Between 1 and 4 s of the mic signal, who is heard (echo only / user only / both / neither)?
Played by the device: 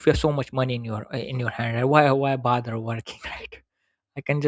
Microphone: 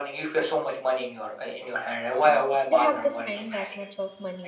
both